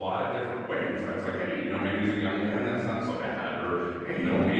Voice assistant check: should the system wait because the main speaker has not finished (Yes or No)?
Yes